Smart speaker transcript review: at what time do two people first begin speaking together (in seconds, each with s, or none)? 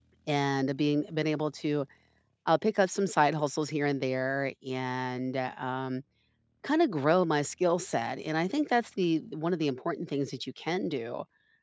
none